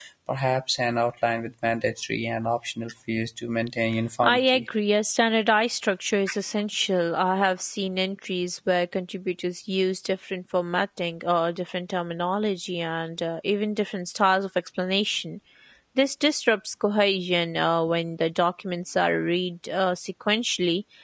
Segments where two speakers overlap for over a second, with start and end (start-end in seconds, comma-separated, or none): none